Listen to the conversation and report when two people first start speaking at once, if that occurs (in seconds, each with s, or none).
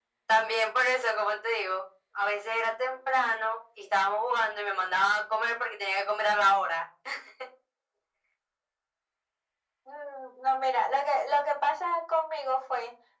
none